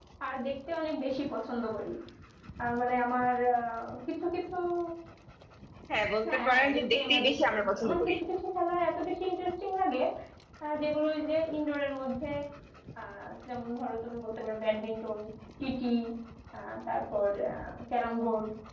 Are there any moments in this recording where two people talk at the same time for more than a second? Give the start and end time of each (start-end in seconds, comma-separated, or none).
6.2-8.1